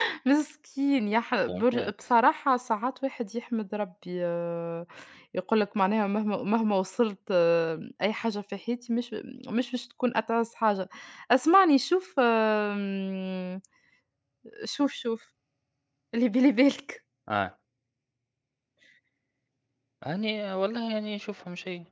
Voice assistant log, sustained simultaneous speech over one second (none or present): none